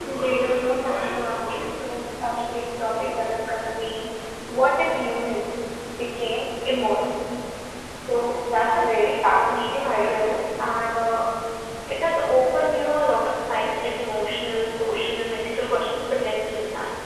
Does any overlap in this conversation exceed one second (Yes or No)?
Yes